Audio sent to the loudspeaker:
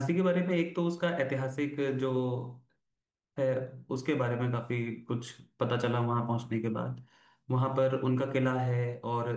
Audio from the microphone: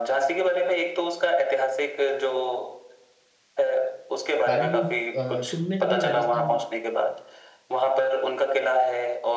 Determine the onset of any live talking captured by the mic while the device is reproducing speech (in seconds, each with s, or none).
4.5 s